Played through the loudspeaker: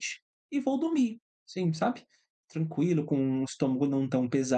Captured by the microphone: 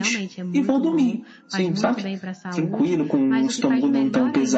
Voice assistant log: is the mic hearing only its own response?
No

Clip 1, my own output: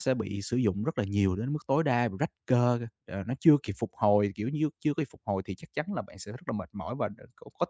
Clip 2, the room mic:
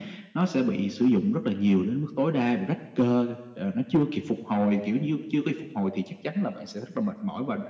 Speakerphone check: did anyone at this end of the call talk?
No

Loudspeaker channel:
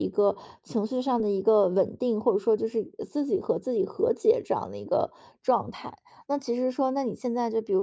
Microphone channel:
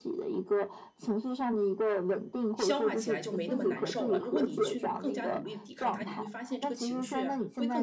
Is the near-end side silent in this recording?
No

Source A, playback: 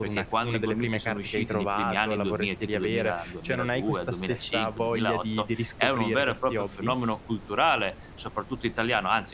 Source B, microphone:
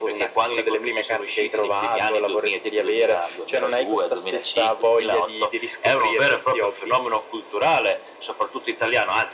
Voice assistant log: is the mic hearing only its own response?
Yes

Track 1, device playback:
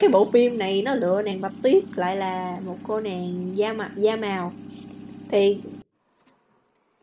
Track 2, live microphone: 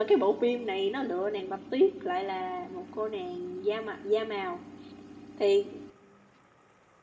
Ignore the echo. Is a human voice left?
No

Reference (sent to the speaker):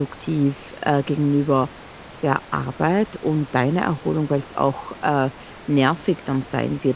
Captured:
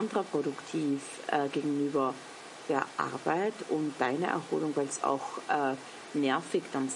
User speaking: No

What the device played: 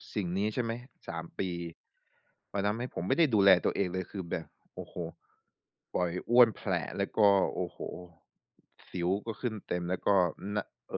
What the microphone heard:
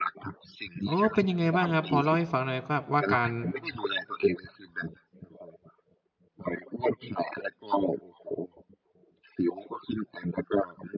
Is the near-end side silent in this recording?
No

